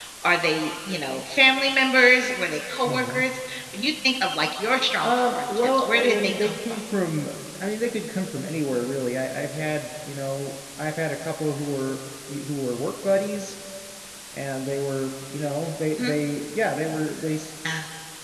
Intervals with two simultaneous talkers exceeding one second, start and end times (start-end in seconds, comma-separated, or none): 5.0-6.8